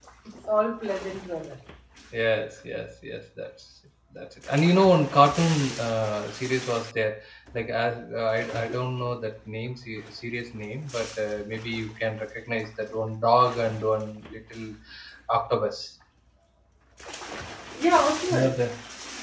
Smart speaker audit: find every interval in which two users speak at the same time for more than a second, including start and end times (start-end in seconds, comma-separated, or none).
none